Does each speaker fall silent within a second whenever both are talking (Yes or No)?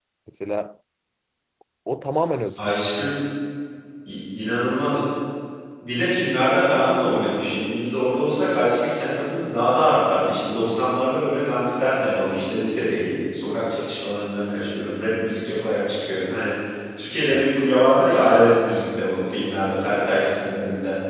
Yes